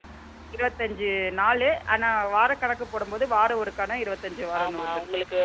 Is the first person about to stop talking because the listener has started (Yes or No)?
Yes